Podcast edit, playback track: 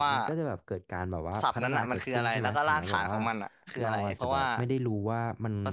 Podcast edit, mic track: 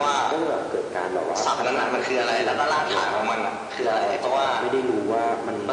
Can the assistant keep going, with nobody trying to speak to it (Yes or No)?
Yes